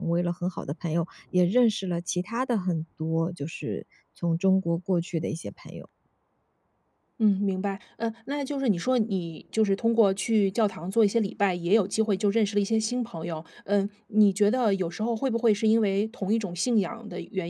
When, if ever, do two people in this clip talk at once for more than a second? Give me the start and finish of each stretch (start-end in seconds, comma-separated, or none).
none